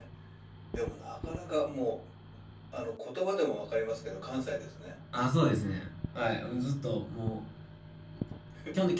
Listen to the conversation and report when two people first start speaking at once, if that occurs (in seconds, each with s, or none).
none